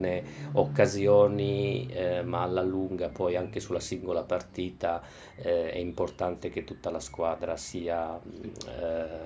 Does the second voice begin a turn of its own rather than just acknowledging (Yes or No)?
No